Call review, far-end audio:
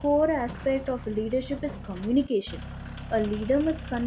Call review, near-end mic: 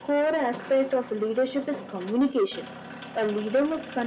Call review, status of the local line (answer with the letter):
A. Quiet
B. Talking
A